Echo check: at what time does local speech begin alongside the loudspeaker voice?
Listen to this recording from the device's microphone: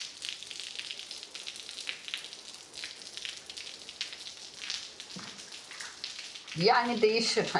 7 s

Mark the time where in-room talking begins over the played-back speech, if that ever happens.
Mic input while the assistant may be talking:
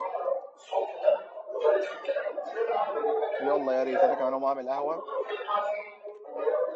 3 s

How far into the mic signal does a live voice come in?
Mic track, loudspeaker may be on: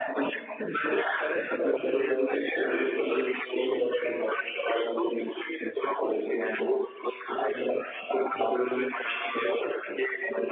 1 s

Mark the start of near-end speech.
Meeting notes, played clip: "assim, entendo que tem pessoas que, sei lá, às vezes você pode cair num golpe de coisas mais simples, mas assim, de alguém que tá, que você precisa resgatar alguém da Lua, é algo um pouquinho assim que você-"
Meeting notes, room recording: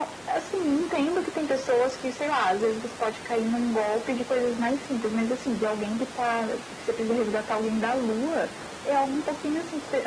none

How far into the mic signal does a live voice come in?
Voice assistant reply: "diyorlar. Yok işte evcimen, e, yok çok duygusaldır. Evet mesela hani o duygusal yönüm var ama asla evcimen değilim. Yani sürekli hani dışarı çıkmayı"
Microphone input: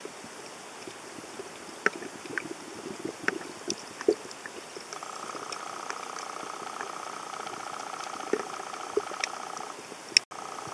none

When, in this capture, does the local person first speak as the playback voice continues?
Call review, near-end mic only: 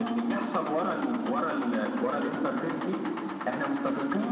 none

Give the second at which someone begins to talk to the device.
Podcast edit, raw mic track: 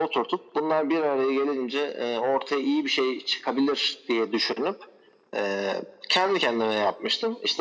none

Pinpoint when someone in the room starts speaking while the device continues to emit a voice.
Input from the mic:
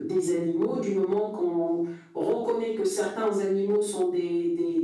none

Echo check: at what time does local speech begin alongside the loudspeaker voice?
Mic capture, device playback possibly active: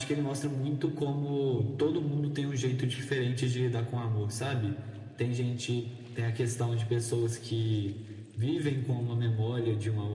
none

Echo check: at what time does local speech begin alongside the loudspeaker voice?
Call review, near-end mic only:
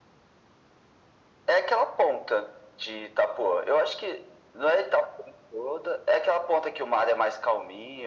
none

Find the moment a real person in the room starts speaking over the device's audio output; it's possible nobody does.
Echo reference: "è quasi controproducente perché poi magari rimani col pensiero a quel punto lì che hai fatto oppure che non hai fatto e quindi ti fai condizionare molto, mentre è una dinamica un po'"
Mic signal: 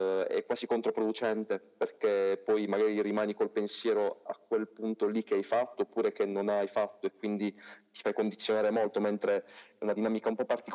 none

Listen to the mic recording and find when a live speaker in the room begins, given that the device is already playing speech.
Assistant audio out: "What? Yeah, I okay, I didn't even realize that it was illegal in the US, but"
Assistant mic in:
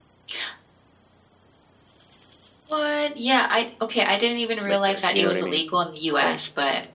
5 s

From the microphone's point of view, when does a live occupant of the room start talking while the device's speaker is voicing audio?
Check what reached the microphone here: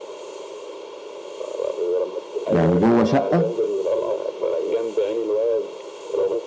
2 s

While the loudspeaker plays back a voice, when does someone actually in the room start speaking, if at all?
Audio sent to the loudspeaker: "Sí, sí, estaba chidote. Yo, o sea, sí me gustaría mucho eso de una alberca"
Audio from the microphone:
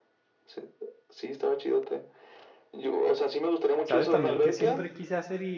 4 s

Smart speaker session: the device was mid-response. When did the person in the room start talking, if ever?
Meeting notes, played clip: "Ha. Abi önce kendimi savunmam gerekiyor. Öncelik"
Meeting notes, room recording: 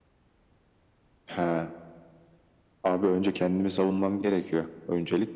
none

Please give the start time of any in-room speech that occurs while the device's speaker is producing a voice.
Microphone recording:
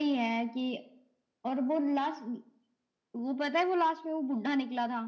none

